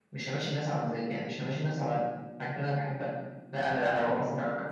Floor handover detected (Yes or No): Yes